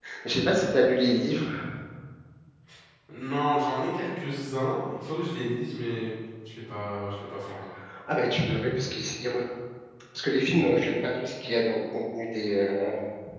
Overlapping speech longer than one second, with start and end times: none

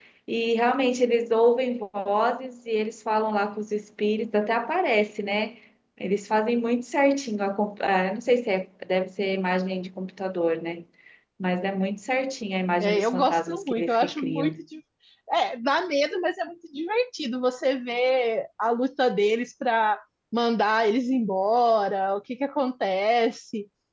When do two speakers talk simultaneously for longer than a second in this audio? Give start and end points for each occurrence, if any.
12.8-14.6

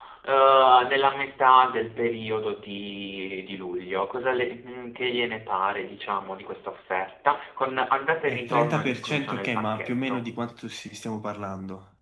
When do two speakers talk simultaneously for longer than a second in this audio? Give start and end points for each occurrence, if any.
8.3-10.3

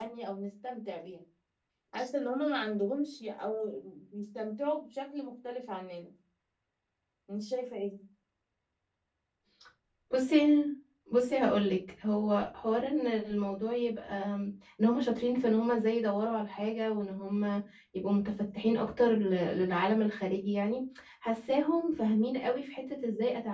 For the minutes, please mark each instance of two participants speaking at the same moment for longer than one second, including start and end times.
none

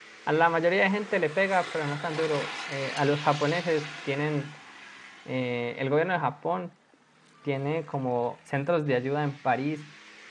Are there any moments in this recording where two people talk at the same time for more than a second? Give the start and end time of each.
none

